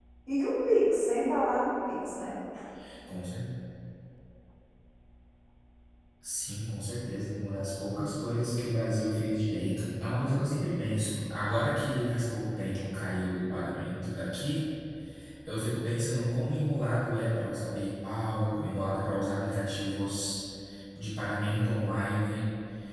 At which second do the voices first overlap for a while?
none

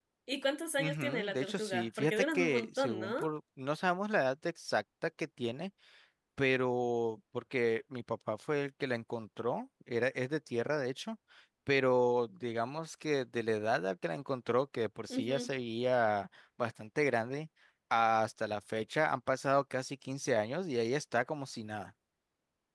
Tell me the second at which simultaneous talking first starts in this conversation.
0.8 s

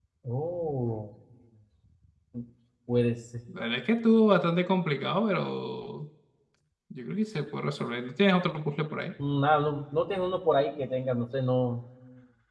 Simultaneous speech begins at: none

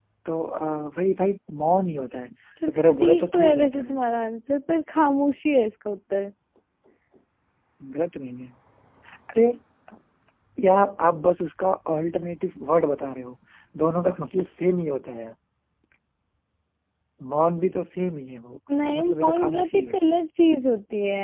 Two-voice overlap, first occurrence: 2.7 s

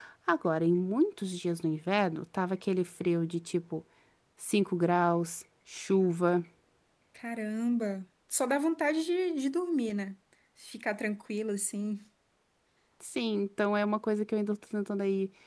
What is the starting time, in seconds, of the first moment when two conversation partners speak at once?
none

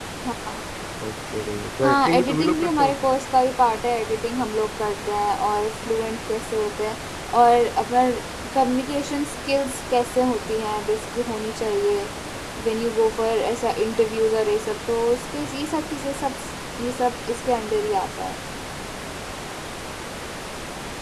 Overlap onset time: 1.8 s

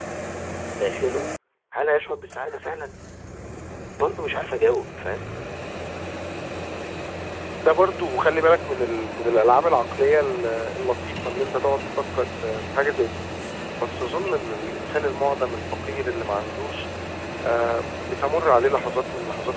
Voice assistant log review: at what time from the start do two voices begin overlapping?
none

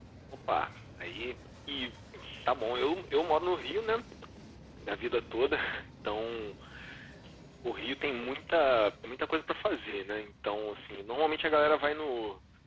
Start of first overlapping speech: none

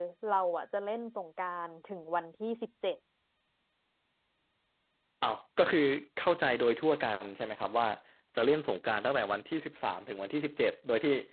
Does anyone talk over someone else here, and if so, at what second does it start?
none

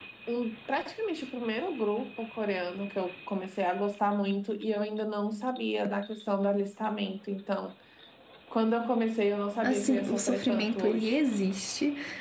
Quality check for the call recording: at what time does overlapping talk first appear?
9.6 s

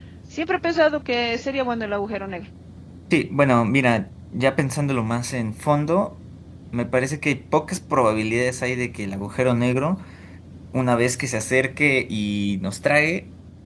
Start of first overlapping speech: none

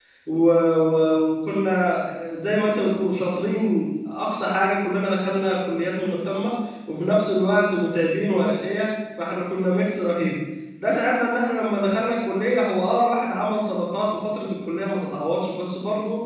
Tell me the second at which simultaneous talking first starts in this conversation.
none

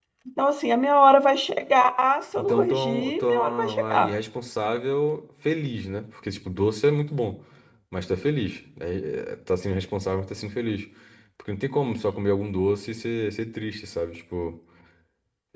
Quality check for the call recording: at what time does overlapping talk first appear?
2.4 s

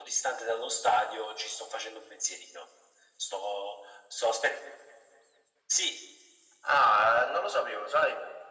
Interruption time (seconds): none

